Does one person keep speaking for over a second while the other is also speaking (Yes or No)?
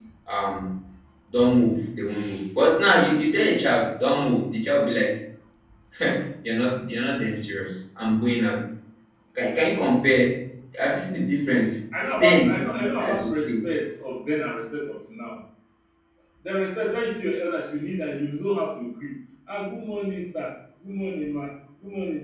Yes